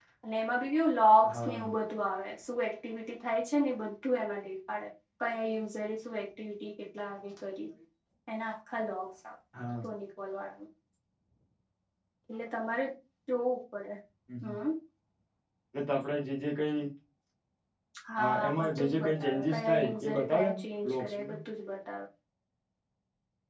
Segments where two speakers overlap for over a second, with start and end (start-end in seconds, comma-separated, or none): 18.5-20.6